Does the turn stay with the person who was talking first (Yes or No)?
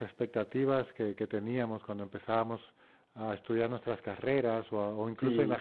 Yes